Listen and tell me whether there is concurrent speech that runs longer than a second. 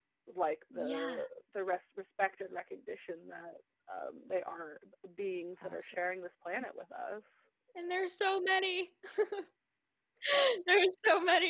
No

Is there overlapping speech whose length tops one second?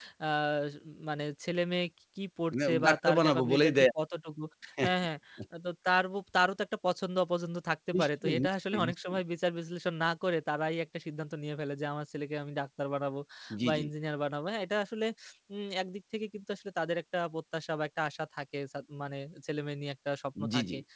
Yes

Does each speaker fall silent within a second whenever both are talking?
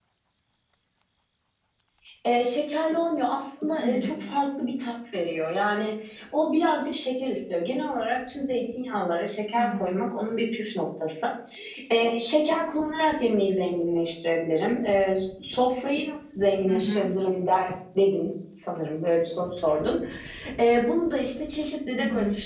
Yes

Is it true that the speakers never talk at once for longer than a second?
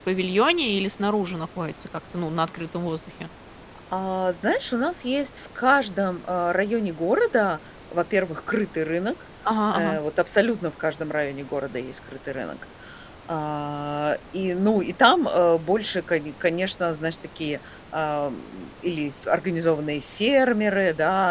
Yes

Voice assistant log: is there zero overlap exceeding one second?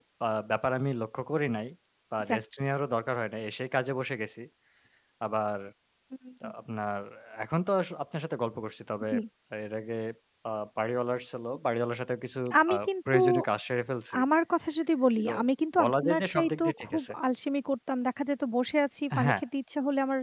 No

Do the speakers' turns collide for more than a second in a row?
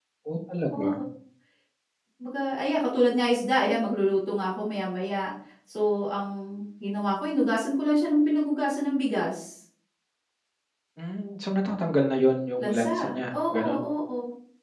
Yes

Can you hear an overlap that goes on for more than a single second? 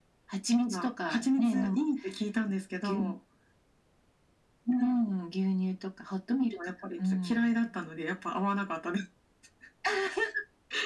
Yes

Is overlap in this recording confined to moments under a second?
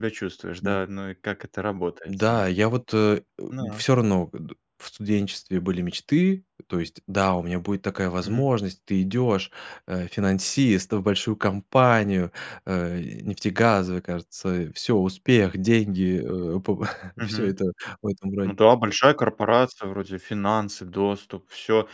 Yes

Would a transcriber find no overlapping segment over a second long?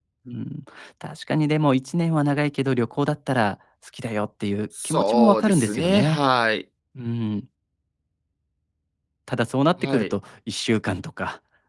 No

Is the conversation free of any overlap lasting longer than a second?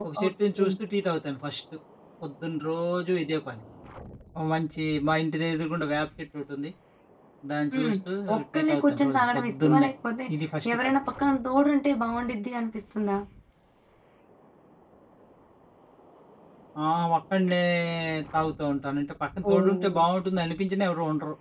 No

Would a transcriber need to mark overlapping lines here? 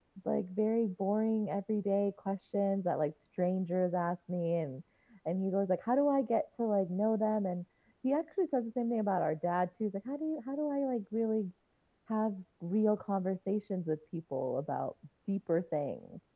No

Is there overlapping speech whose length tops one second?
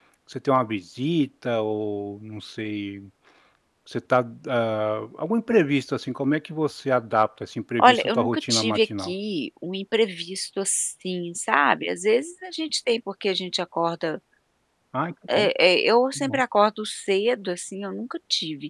Yes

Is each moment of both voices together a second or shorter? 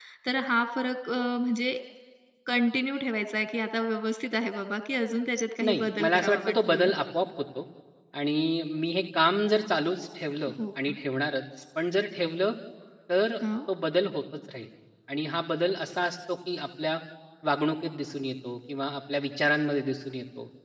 No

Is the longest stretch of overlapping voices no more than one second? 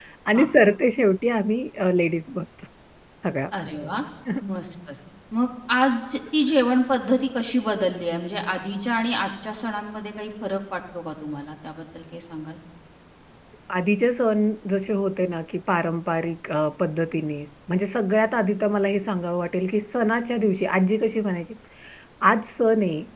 Yes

